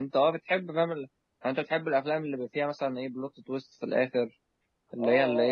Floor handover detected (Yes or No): Yes